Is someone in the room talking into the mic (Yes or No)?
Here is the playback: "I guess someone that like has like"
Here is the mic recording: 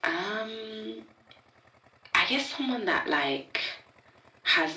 No